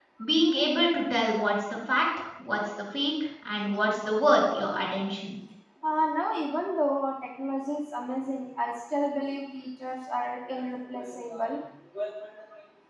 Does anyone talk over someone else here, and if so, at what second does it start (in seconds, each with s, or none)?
none